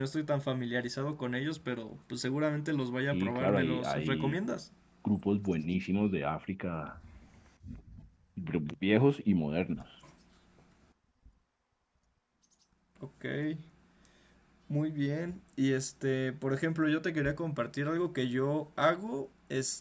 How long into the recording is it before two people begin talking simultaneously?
3.1 s

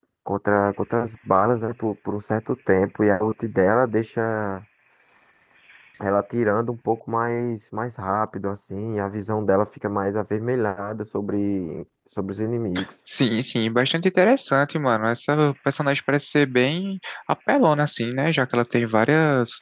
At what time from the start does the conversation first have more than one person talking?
none

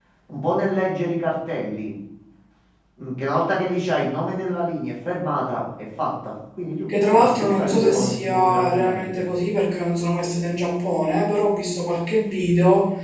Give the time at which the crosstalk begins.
6.9 s

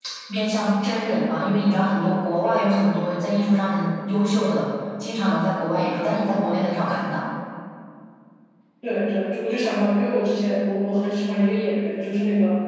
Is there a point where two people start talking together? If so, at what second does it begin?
none

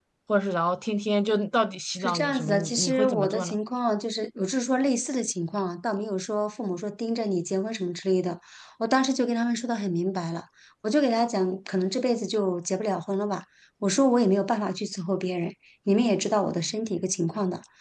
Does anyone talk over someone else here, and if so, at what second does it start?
2.0 s

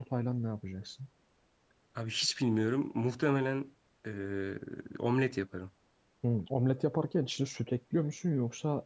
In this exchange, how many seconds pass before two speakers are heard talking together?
none

